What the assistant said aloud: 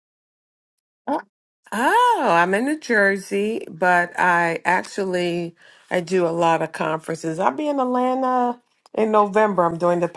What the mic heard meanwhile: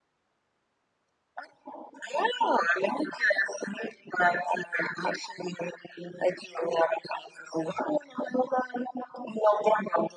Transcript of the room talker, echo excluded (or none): none